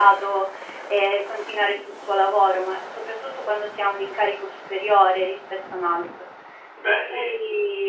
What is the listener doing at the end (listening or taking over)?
listening